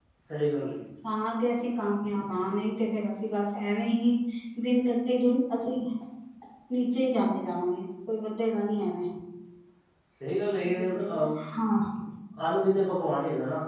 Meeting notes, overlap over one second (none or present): none